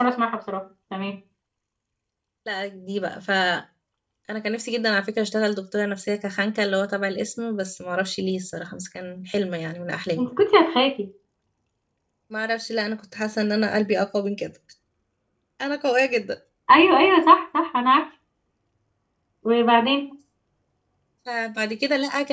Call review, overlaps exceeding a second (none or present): none